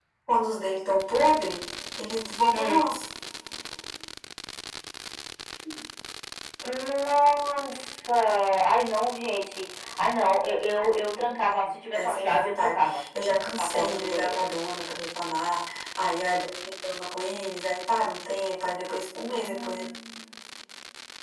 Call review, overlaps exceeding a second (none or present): present